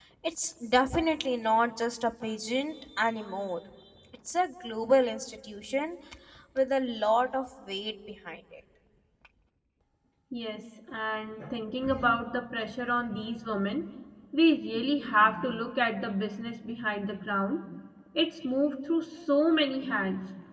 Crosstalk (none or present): none